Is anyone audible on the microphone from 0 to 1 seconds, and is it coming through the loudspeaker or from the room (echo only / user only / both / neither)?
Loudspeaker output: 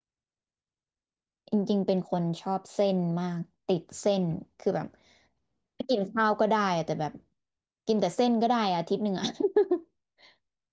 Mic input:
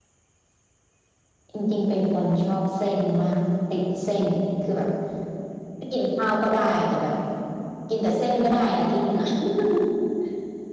neither